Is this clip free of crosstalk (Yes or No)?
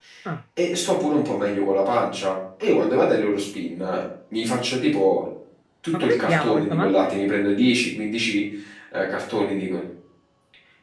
No